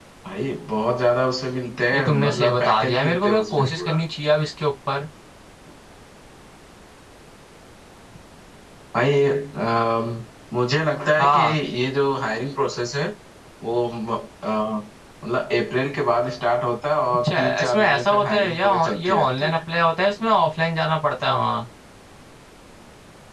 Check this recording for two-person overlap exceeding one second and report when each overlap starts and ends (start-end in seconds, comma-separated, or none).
1.9-4.0, 17.2-19.6